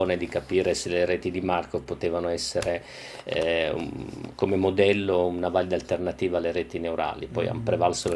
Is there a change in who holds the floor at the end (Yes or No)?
Yes